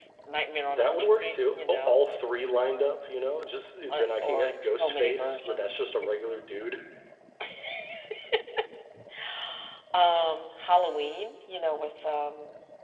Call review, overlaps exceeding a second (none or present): present